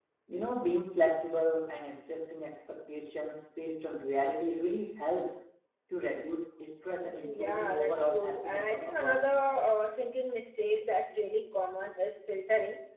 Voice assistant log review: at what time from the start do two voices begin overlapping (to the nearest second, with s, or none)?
7 s